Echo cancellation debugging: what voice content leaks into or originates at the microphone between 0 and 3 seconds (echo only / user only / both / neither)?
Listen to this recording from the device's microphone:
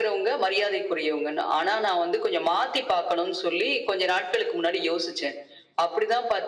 echo only